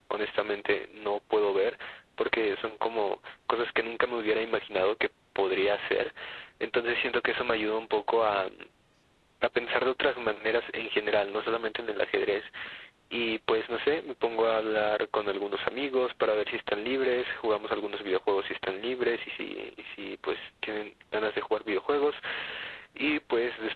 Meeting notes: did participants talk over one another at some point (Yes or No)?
No